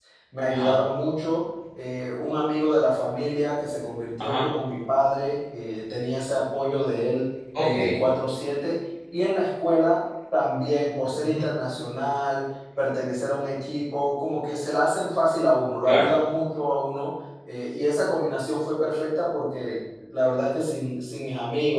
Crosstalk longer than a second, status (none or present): none